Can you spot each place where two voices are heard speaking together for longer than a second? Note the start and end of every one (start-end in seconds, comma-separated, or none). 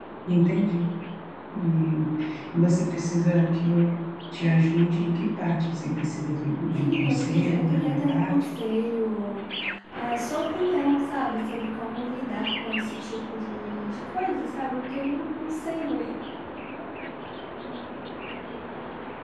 6.7-8.5